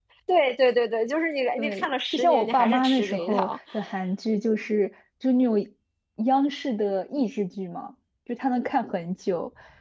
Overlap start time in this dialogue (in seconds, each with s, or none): 1.6 s